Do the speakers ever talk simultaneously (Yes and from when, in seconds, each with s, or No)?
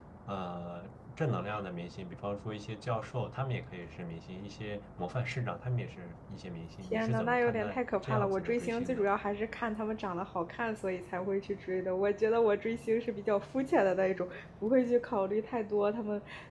Yes, from 6.9 s